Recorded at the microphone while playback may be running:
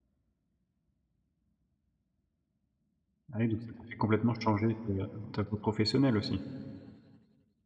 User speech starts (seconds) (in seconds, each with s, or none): 3.3 s